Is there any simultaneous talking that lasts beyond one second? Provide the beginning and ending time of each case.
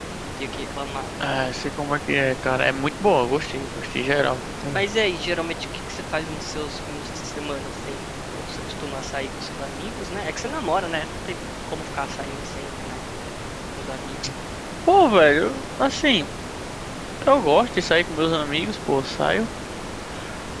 none

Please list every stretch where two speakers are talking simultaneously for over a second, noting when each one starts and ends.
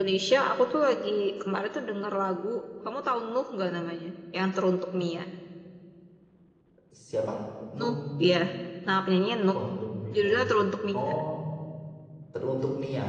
none

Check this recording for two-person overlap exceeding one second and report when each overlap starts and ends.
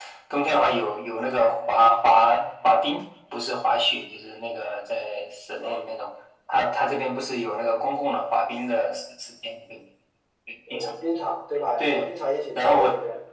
none

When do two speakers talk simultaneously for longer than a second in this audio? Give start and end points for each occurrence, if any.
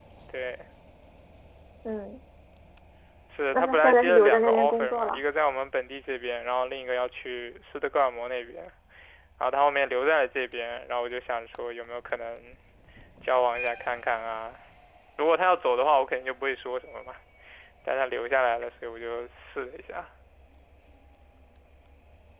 3.5-5.2

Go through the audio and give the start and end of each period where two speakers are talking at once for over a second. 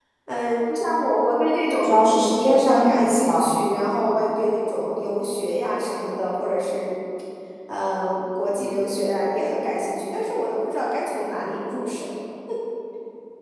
1.8-3.5

